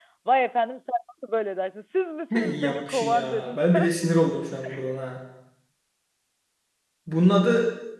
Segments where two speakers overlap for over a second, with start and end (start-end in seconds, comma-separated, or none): 2.5-3.9